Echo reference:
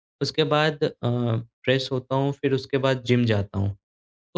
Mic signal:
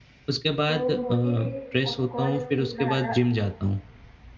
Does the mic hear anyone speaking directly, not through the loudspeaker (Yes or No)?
Yes